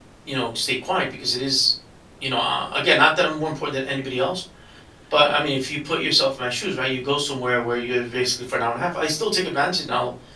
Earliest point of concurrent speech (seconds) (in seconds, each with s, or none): none